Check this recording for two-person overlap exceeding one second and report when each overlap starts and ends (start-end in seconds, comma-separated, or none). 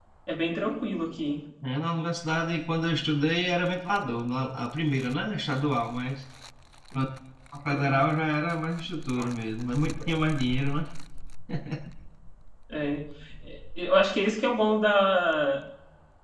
none